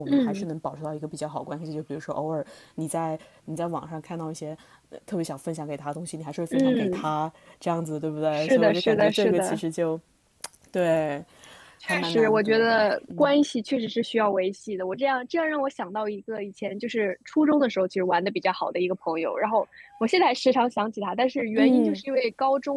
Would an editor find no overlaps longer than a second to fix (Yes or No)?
No